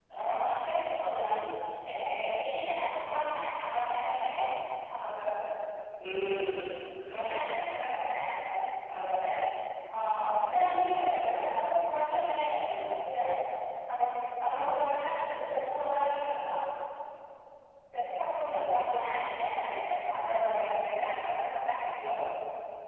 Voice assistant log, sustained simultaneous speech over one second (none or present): none